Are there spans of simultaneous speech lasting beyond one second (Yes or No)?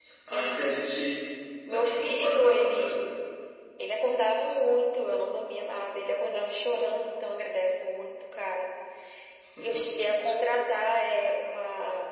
Yes